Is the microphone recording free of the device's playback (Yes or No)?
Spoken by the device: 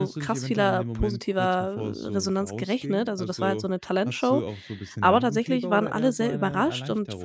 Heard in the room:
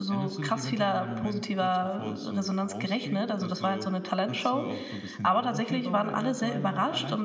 No